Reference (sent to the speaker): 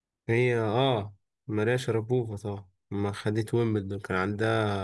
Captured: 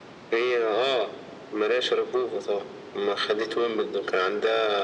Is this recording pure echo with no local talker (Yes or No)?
Yes